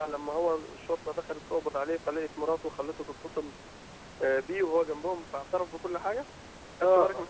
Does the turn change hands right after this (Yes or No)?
Yes